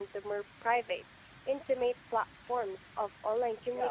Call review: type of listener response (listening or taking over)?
taking over